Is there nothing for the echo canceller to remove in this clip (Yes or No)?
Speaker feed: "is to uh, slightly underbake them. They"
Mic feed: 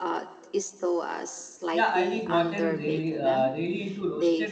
No